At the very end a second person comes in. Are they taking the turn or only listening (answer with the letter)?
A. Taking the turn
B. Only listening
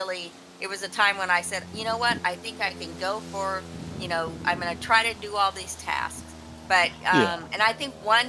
B